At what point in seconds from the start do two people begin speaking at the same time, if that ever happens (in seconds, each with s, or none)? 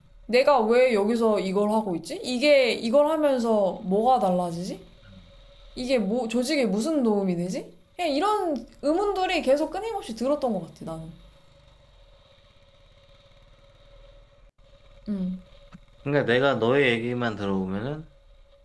none